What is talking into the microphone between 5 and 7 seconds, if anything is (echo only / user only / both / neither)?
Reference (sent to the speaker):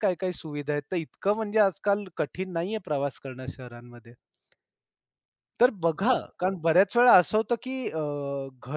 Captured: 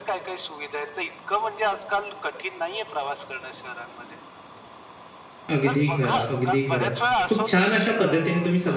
both